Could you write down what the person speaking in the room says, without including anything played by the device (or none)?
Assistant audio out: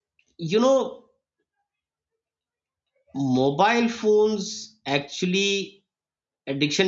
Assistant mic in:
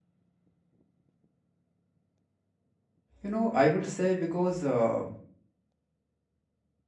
You know, I would say because uh,